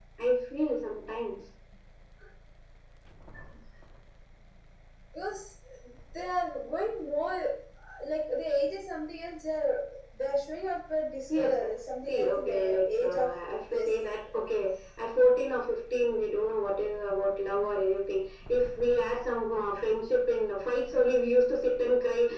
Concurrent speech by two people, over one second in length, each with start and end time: 12.1-13.3

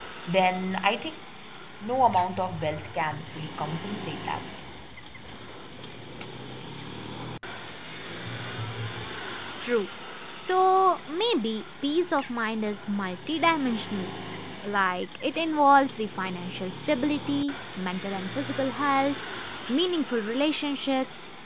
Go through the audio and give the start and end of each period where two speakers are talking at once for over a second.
none

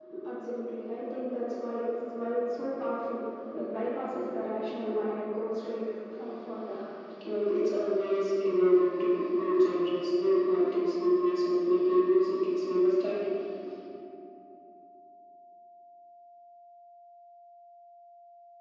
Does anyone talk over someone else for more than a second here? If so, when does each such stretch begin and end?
none

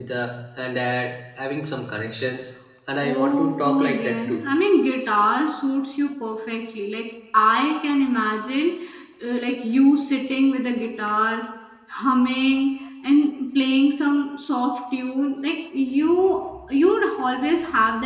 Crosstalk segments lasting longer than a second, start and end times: 3.0-4.4

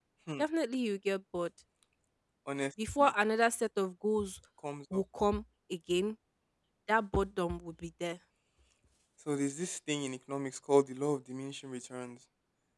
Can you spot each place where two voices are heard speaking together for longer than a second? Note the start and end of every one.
none

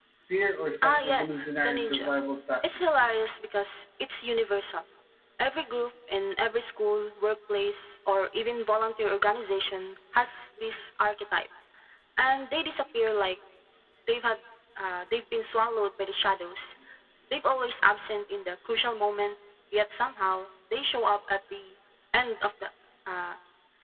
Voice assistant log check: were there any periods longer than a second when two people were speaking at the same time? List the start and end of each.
0.8-2.1

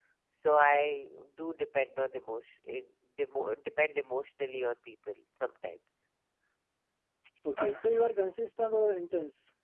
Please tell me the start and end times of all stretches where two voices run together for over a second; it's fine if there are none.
none

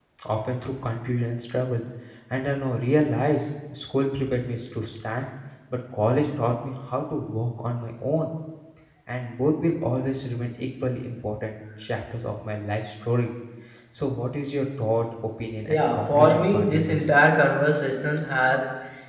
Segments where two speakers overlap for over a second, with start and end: 15.7-17.1

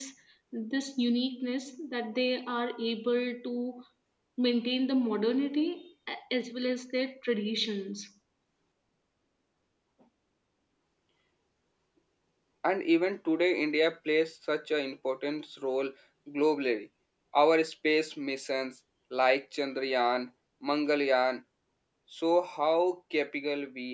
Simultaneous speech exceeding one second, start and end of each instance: none

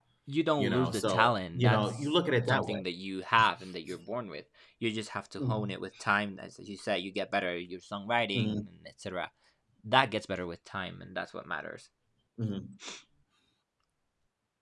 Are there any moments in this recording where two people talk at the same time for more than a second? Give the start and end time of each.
0.6-2.8

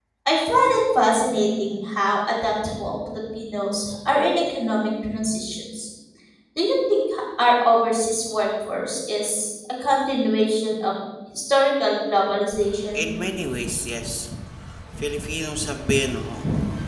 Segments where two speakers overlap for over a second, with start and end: none

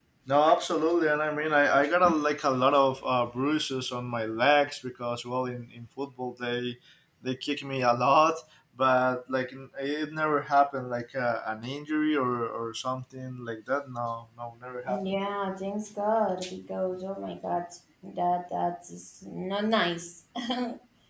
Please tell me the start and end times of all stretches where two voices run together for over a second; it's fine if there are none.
none

